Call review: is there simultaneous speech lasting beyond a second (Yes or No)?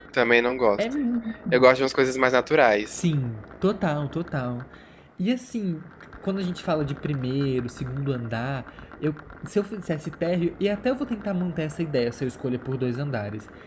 No